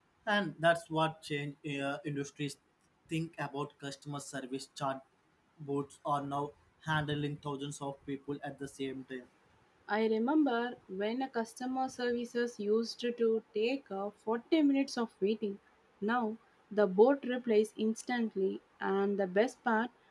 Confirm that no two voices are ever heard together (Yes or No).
Yes